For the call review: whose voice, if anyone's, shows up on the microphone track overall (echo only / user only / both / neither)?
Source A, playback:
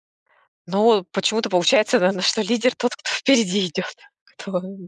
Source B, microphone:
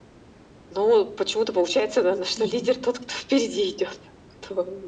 both